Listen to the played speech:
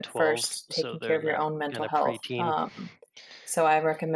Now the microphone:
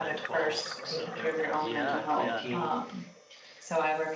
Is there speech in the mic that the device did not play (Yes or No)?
Yes